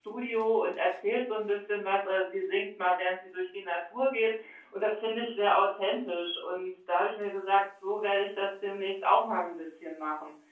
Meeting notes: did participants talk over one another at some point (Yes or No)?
No